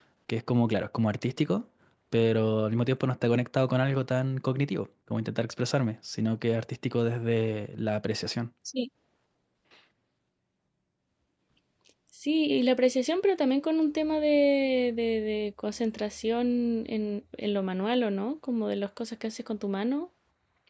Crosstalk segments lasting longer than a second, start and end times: none

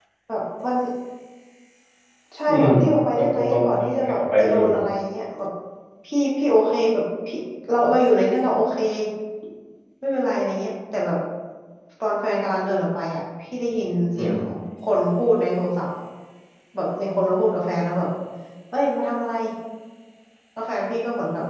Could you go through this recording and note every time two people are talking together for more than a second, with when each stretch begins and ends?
3.2-4.7

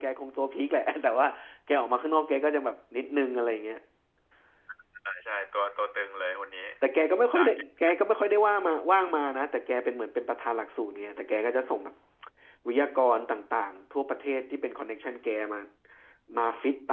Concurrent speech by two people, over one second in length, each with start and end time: none

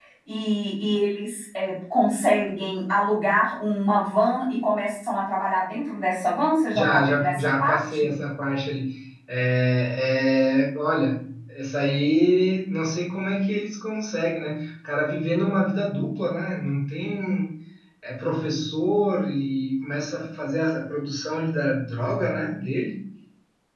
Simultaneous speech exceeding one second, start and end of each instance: 6.8-8.1

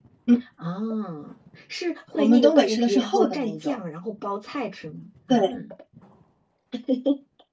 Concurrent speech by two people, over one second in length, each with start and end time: 2.2-3.8

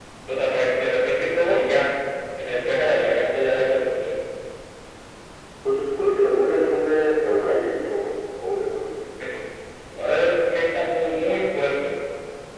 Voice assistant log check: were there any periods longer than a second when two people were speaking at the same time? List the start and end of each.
none

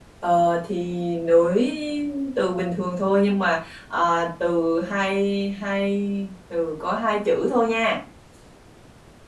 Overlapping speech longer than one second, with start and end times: none

